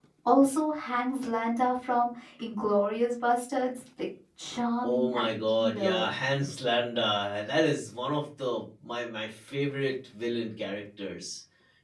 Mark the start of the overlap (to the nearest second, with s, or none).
5 s